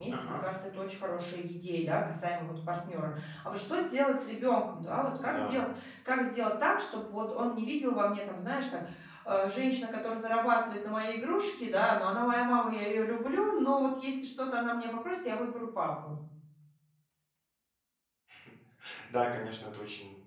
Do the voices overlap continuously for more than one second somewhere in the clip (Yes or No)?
No